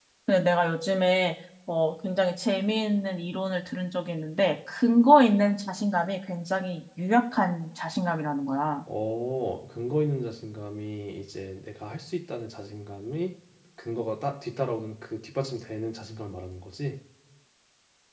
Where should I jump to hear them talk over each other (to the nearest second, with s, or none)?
none